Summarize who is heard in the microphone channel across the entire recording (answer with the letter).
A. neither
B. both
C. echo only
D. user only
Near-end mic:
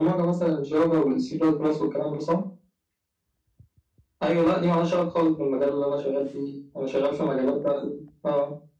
C